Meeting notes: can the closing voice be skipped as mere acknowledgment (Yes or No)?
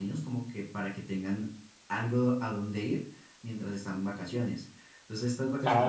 No